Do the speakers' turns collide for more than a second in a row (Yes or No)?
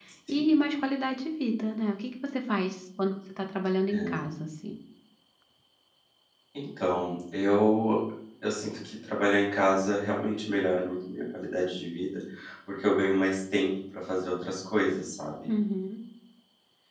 No